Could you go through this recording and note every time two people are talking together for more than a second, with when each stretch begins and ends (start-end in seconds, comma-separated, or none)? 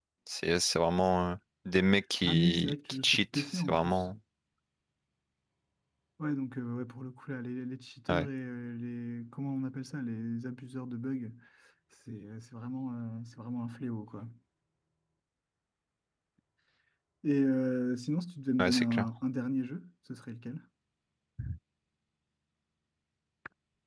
2.3-4.0